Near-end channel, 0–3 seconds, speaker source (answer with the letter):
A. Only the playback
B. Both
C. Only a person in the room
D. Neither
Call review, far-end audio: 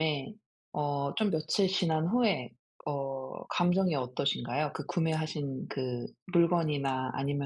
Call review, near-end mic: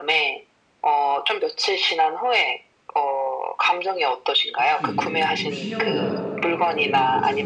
A